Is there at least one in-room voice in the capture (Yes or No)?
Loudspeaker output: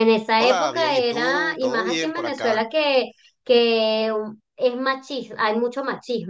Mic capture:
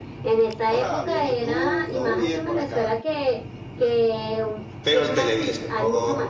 Yes